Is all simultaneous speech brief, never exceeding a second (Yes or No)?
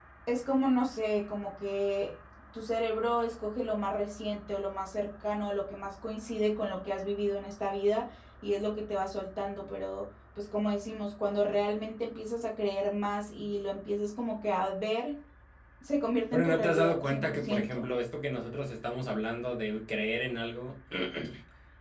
No